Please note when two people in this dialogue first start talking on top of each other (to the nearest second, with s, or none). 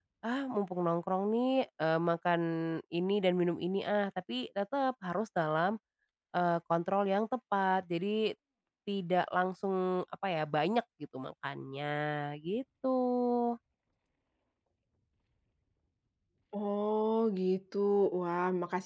none